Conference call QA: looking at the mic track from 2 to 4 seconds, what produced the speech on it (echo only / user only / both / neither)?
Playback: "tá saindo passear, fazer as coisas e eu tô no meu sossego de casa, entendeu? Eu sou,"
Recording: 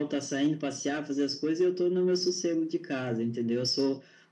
echo only